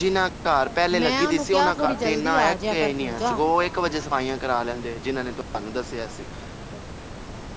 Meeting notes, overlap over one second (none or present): present